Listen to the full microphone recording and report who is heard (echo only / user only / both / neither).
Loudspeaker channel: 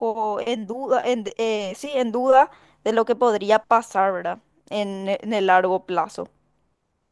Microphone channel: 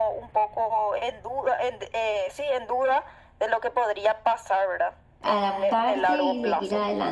both